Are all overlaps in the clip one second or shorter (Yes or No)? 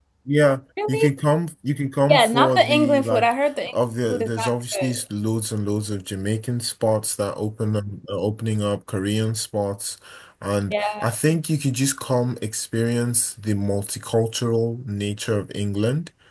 No